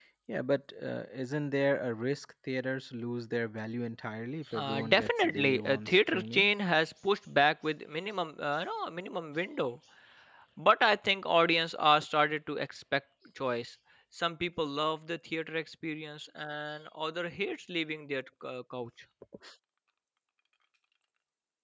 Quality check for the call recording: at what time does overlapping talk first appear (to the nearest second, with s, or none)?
5 s